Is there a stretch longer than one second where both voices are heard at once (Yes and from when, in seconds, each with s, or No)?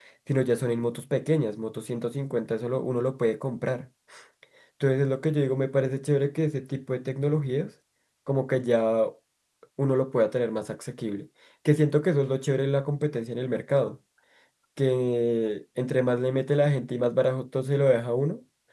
No